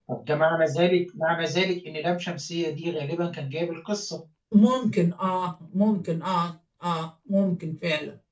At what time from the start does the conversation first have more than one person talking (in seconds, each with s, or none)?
none